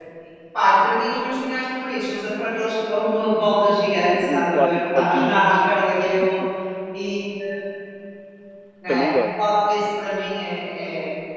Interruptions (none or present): present